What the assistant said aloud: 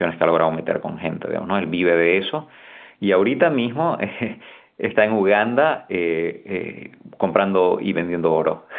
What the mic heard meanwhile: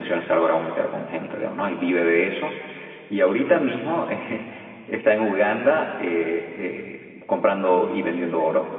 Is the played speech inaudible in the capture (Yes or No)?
No